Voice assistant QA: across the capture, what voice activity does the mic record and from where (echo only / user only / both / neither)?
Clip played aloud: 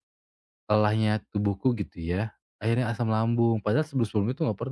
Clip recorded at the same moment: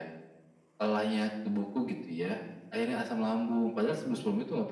echo only